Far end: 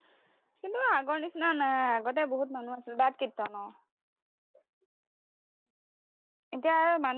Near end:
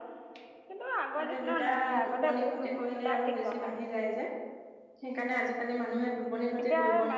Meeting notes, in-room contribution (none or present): present